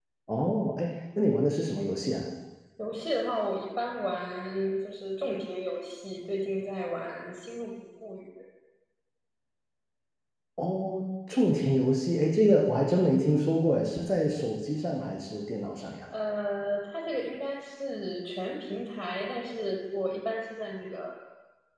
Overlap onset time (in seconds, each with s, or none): none